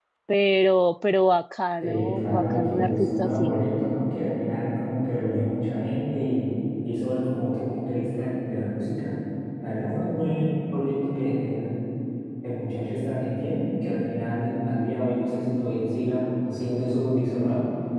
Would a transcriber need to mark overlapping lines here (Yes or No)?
Yes